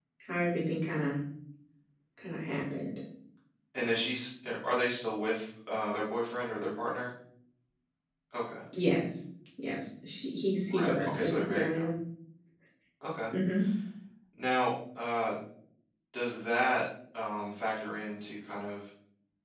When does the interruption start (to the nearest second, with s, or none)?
11 s